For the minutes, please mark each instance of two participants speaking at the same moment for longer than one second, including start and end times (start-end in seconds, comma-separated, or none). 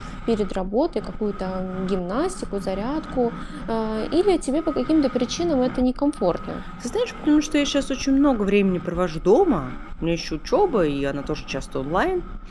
none